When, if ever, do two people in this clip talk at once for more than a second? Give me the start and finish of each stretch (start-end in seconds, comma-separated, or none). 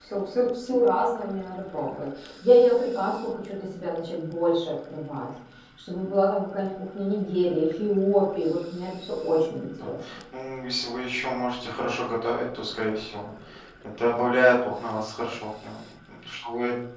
none